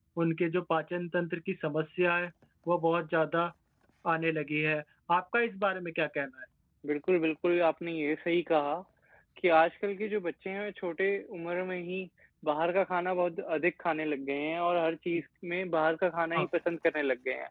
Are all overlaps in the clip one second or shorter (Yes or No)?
Yes